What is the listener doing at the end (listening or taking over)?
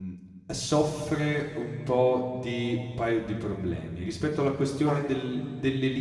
listening